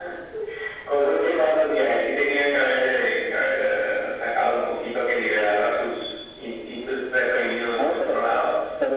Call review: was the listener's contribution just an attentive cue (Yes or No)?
No